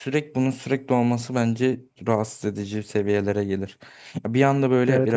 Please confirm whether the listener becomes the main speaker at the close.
No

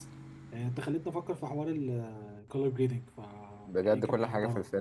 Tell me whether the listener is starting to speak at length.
Yes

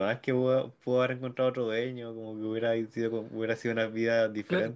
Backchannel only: No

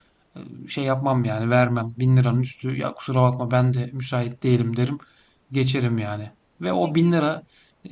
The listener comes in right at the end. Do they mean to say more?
No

